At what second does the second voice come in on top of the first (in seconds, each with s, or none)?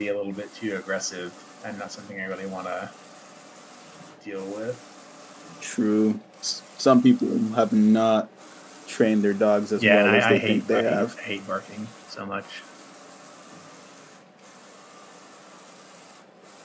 9.8 s